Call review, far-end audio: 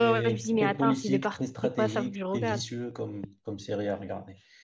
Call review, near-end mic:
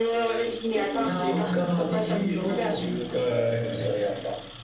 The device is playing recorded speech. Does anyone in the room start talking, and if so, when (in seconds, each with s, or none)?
1.0 s